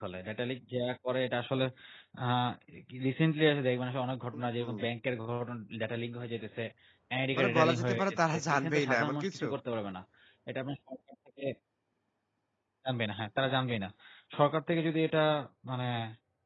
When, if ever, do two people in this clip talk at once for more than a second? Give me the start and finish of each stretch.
7.4-9.4

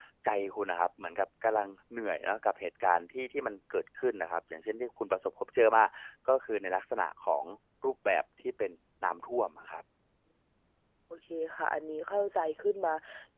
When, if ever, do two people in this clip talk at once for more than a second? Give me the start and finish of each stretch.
none

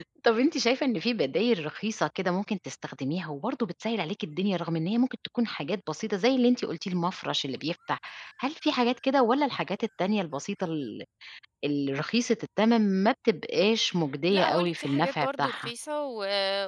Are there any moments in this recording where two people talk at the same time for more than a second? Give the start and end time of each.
14.3-15.7

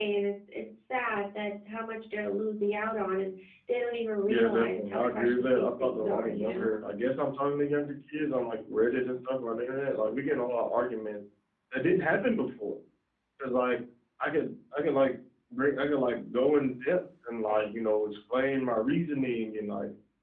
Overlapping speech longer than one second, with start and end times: 4.3-6.8

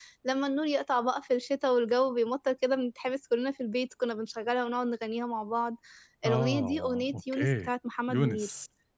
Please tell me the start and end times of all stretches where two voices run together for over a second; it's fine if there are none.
6.2-7.7

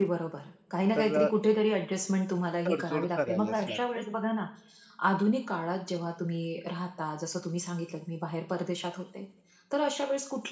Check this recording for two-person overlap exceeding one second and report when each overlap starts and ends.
2.7-4.0

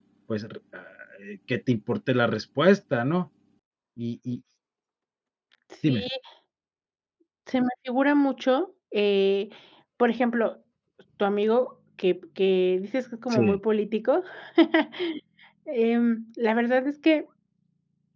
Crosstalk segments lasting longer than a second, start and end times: none

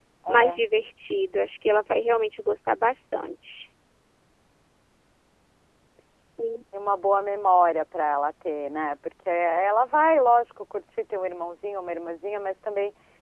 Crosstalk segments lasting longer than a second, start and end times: none

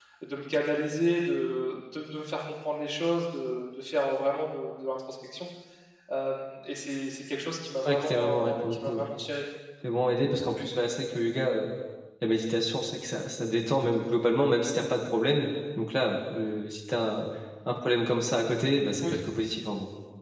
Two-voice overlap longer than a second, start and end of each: 7.8-9.0

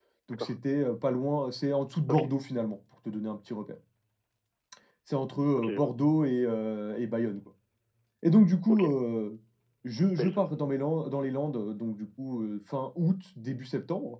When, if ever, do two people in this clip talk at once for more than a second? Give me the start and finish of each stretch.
none

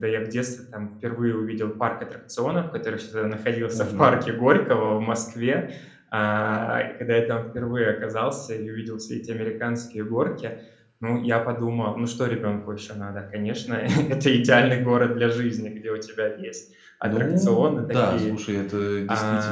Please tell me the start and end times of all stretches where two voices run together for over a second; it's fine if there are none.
17.0-18.3

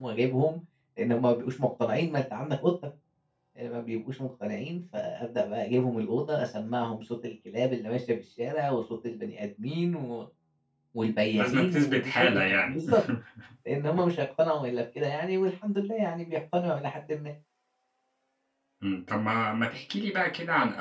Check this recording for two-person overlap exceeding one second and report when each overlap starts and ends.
11.3-12.8

